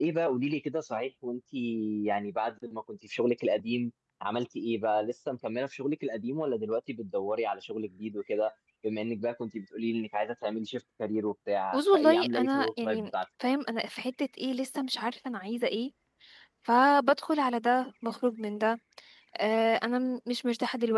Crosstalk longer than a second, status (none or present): present